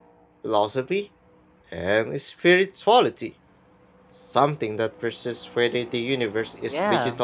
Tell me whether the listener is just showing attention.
No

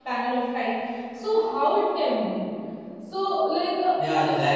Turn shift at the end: Yes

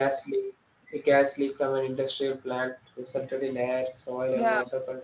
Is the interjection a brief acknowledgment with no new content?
Yes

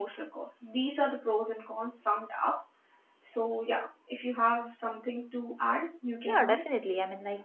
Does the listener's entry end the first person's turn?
Yes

